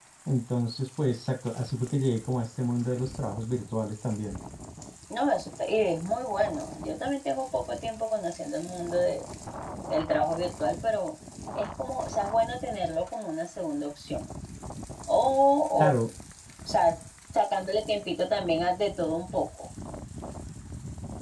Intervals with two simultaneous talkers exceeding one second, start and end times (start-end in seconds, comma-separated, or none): none